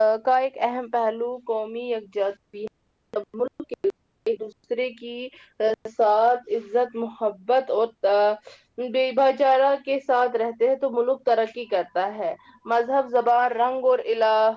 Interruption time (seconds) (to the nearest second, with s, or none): none